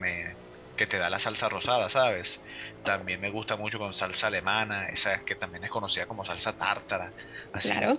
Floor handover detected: No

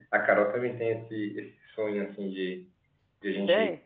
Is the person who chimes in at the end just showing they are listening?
Yes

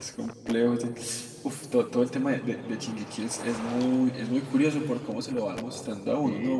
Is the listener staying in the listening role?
No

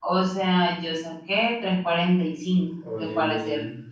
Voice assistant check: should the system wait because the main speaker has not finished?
Yes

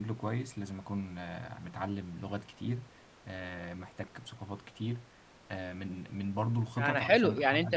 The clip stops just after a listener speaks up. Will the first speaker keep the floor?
No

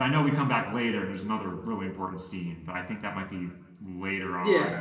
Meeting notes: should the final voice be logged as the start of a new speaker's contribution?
Yes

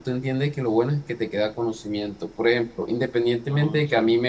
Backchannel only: Yes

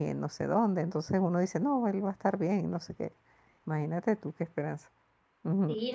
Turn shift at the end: Yes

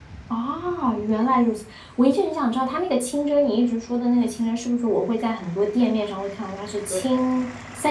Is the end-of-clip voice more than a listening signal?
No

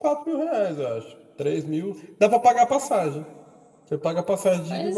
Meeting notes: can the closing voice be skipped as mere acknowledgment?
Yes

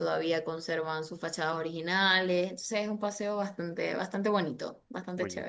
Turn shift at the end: Yes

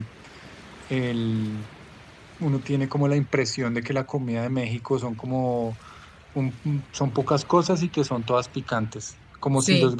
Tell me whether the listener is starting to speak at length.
No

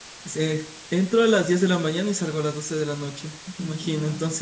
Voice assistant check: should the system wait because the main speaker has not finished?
Yes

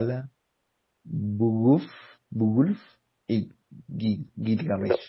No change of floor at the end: No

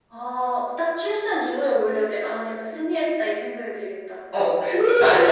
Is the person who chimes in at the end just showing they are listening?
No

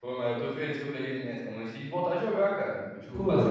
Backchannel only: No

